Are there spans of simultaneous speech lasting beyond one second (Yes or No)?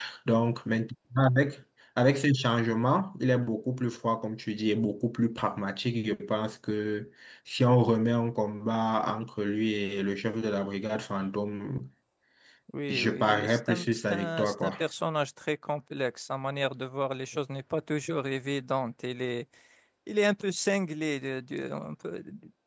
Yes